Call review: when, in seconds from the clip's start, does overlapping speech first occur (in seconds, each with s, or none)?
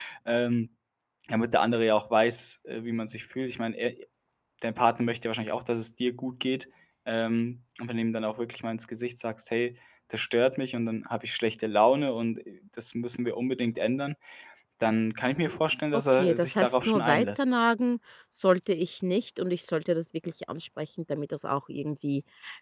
16.1 s